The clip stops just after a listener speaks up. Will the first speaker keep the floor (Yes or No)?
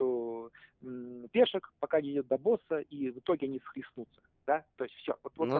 Yes